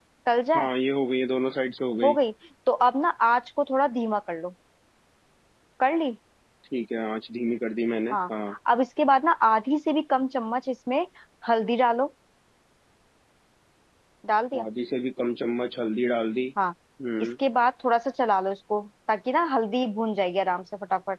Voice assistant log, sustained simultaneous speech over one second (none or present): none